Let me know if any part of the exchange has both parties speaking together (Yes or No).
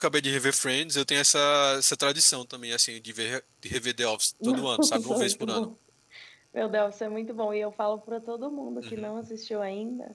Yes